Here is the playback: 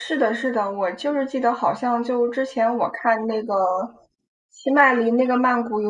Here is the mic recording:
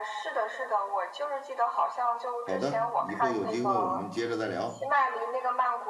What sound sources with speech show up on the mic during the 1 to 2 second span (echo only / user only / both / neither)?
echo only